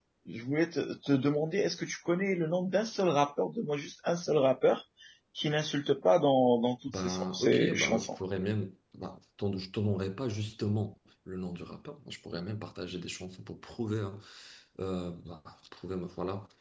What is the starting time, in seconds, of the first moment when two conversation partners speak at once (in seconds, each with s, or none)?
6.9 s